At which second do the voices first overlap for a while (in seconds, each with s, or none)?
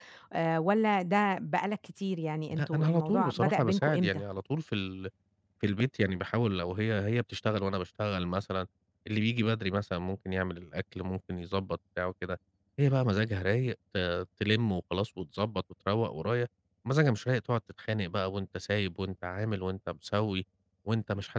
2.5 s